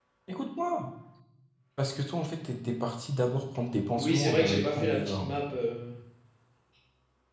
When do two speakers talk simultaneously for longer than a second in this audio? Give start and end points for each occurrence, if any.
4.0-5.4

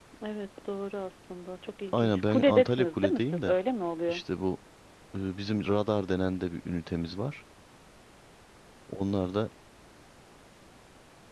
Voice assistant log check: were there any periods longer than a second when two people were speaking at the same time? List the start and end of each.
1.9-3.5

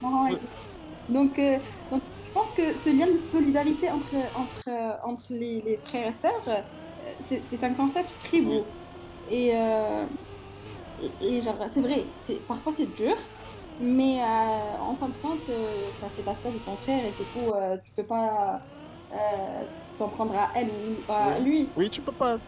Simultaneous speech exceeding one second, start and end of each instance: none

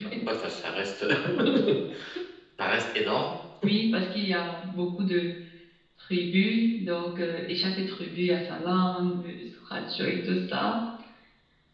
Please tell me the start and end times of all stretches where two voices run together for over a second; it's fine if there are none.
none

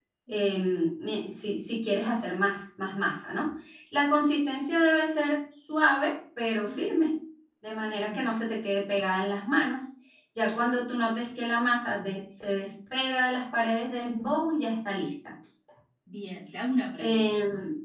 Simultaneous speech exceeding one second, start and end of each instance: none

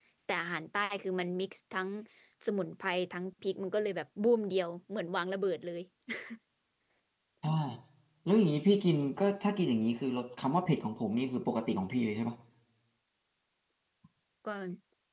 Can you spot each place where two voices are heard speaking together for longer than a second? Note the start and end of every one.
none

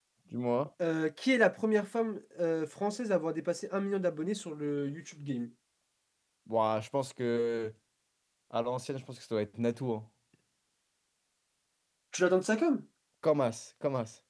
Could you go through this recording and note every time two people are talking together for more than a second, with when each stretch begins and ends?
none

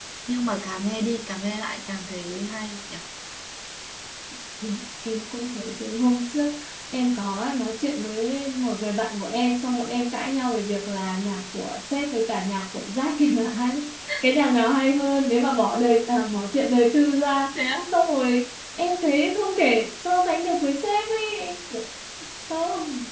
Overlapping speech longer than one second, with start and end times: none

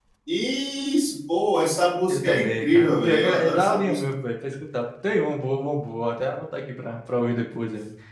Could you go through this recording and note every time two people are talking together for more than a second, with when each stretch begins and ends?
2.1-4.0

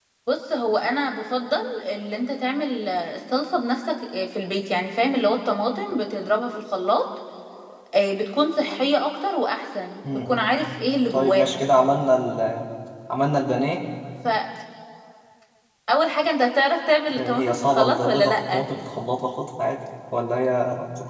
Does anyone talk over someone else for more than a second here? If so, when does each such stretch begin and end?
17.1-18.7

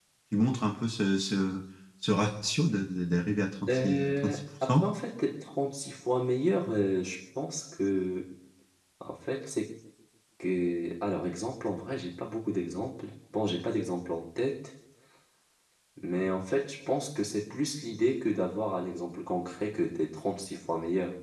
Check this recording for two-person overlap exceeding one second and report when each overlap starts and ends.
3.7-4.9

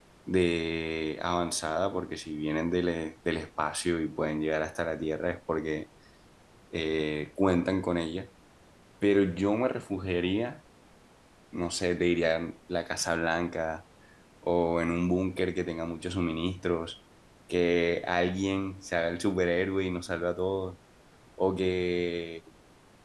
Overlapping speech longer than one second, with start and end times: none

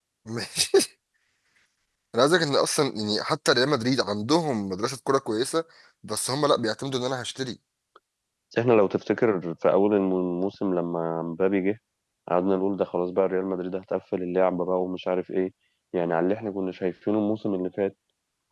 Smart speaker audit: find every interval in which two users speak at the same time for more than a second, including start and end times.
none

